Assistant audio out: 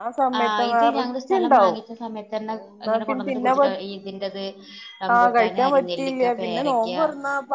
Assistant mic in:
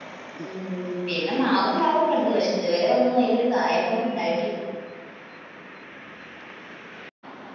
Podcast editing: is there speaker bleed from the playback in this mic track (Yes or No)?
No